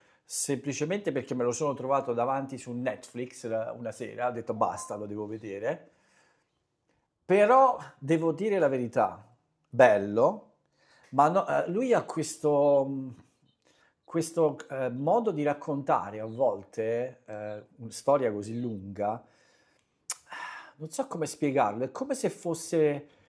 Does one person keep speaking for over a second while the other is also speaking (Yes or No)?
No